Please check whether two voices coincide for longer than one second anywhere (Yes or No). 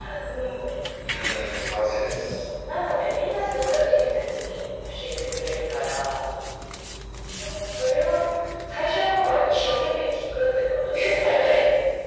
No